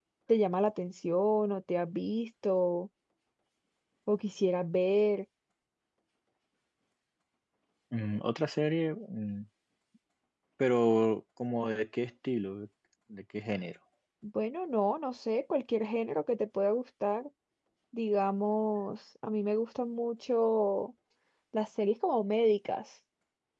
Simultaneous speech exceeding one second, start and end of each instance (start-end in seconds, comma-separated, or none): none